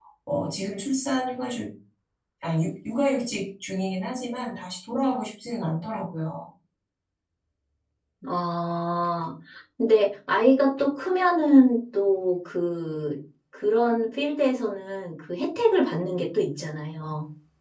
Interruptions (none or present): none